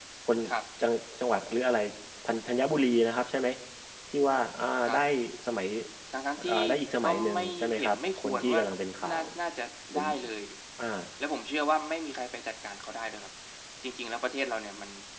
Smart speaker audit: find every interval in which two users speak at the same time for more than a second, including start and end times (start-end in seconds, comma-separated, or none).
7.0-8.6